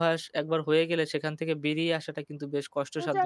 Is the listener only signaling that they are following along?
No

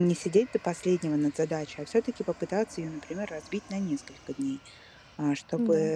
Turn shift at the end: No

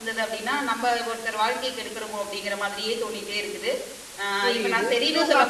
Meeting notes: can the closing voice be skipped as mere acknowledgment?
No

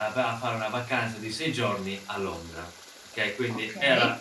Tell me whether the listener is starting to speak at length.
No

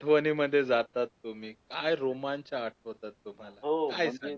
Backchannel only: No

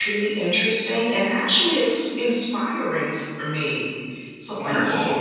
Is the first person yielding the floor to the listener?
Yes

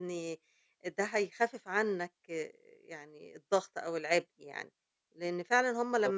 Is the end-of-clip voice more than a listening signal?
No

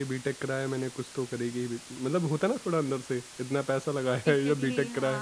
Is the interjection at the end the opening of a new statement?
Yes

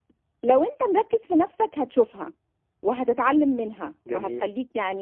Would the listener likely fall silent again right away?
Yes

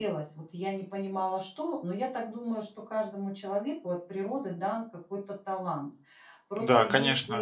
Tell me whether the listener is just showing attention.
No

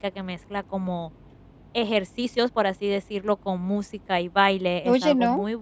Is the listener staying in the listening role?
Yes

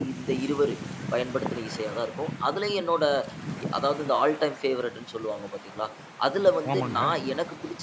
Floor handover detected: No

